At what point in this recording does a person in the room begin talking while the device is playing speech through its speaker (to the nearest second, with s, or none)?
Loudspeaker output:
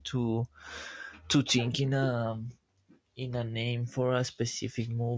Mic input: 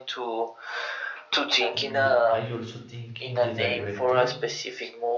2 s